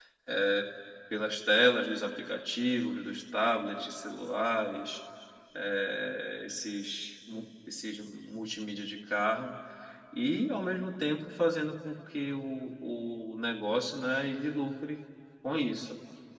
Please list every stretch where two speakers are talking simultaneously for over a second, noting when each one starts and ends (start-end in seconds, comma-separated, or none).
none